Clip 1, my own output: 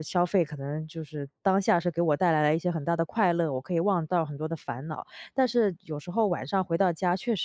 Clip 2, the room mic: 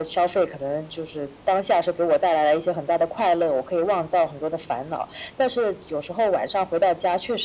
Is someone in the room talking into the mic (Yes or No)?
No